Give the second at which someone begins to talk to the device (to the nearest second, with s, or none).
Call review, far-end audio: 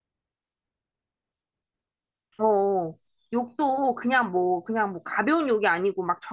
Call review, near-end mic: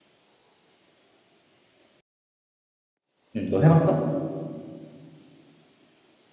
3 s